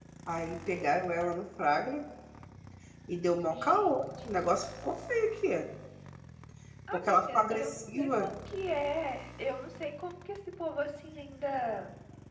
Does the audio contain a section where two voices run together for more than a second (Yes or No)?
Yes